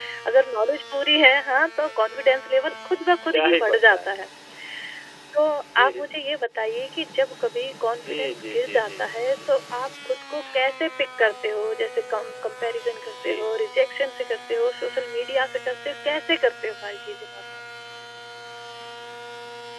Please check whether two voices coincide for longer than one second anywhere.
Yes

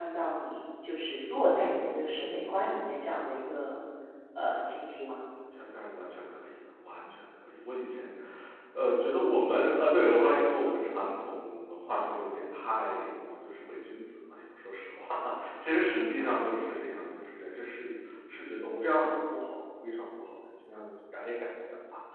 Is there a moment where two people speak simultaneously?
No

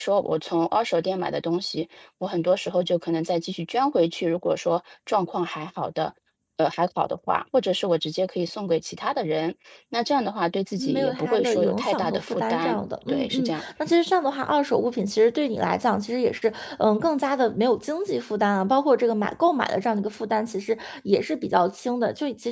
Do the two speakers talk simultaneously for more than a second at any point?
Yes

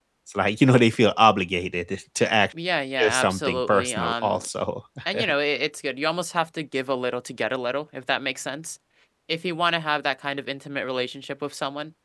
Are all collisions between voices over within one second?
No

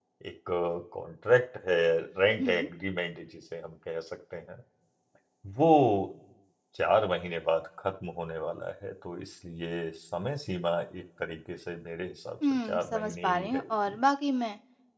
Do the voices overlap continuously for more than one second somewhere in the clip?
Yes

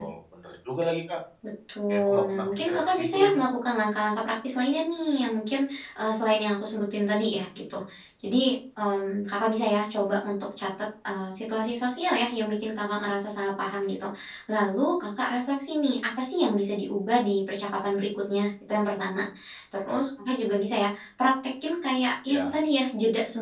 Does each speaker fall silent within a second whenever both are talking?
No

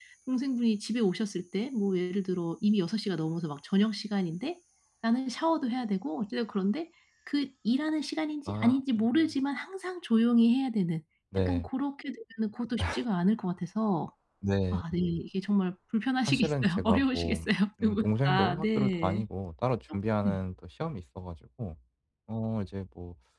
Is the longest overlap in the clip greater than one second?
Yes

